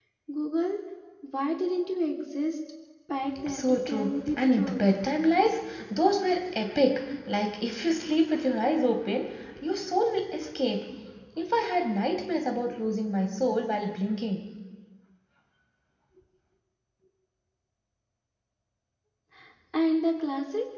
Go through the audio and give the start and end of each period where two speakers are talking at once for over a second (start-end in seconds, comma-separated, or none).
3.5-4.8